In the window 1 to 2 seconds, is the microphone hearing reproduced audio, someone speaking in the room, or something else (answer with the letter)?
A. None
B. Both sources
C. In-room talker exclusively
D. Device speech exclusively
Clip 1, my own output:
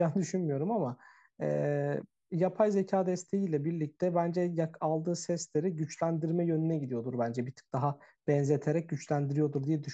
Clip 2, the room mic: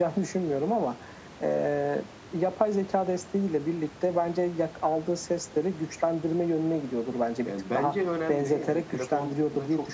D